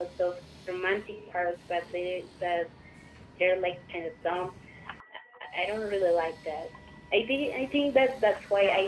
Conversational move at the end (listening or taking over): listening